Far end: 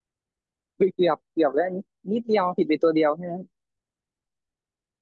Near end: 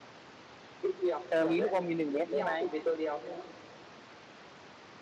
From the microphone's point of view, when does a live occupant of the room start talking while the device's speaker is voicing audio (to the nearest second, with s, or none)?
1 s